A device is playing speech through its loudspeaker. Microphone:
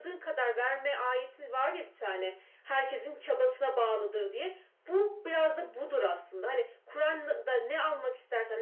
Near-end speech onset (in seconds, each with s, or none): none